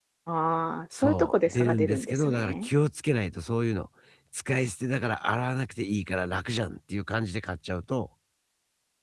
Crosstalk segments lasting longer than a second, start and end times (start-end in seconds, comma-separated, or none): 0.9-2.7